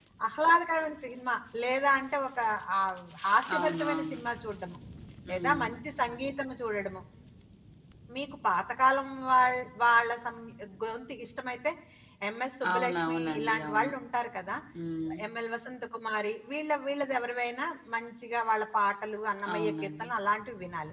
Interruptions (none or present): present